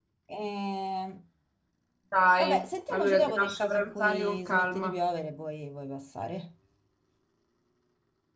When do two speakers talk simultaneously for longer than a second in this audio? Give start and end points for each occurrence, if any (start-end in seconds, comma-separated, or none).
2.4-5.0